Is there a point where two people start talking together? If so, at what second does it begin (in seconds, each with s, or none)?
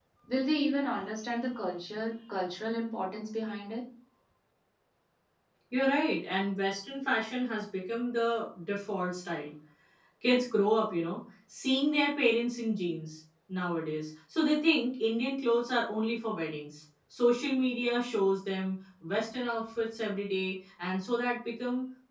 none